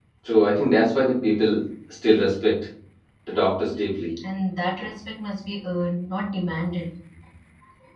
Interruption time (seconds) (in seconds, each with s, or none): none